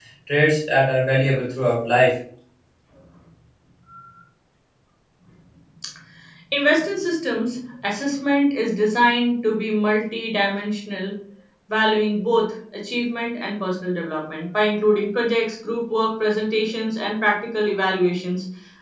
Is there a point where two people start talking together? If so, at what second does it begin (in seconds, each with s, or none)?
none